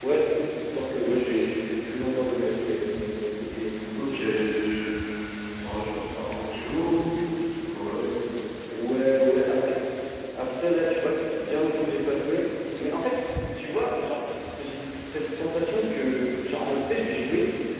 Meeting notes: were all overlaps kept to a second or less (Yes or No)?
Yes